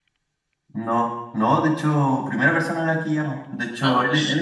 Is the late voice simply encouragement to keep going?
Yes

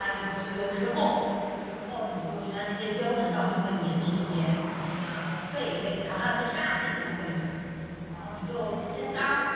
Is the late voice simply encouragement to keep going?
Yes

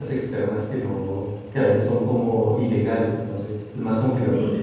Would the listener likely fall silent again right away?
Yes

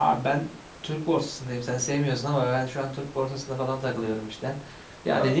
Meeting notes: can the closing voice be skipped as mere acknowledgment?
Yes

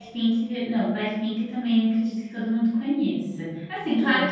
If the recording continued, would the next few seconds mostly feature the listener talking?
No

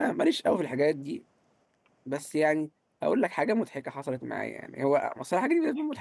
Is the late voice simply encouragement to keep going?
Yes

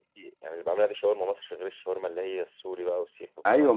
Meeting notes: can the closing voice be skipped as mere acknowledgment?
No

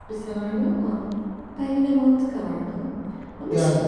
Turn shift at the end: No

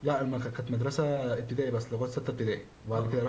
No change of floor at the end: Yes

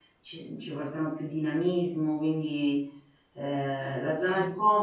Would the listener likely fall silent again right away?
Yes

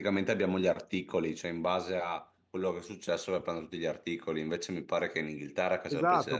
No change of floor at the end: No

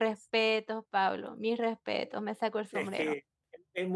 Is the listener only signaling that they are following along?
No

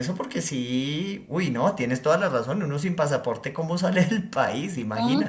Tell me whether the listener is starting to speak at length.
Yes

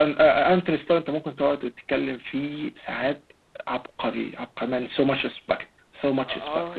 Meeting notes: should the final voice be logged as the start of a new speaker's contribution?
Yes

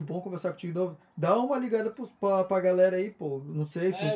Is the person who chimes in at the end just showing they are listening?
No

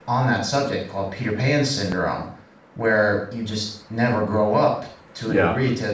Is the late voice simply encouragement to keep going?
Yes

